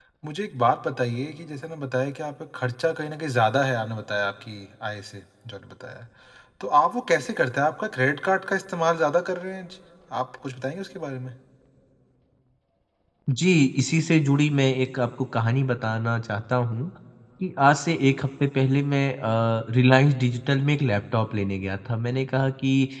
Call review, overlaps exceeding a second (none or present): none